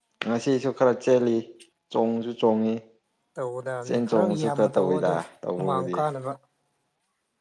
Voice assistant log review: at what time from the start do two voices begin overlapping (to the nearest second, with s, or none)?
4 s